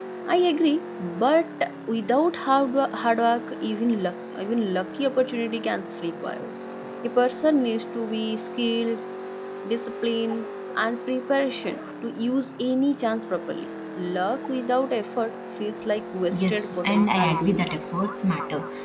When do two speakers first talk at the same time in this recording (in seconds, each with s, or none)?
16.3 s